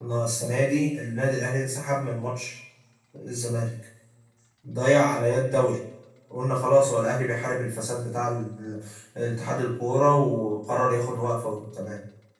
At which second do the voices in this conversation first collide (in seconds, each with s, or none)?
none